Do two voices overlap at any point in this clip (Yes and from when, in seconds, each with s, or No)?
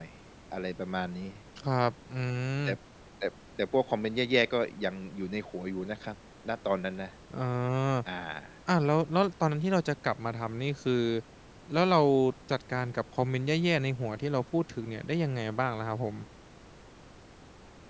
No